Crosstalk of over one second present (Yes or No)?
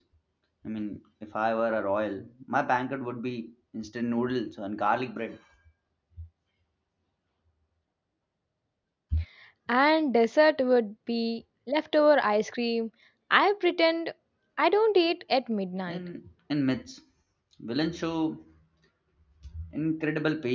No